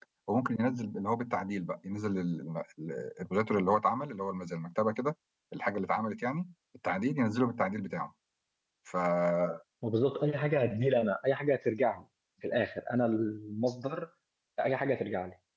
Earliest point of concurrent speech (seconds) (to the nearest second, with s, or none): none